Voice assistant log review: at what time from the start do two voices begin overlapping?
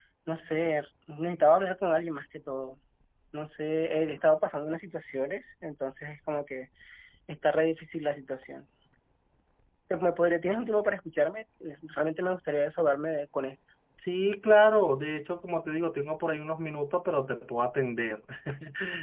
none

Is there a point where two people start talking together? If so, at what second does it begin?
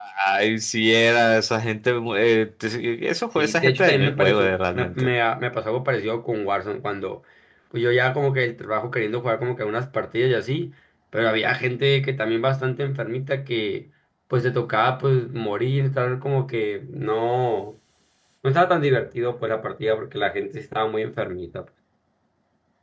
3.4 s

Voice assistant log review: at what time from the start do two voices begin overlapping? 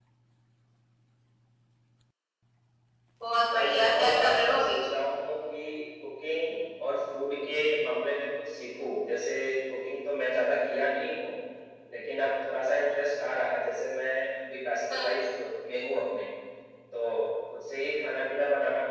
3.5 s

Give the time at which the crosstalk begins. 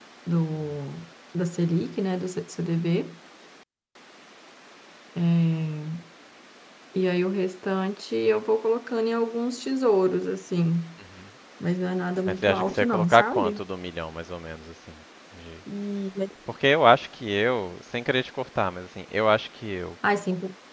12.3 s

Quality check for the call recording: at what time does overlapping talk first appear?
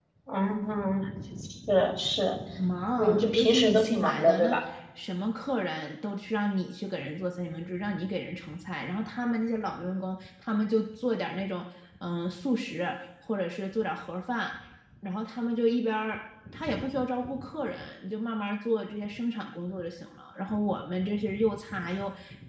3.0 s

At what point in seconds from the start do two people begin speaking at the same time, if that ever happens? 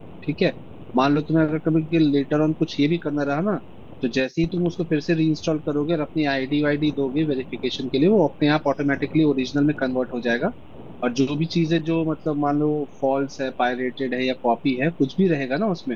none

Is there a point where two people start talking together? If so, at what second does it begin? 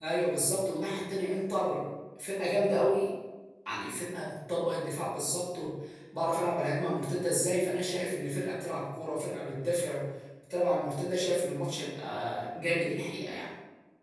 none

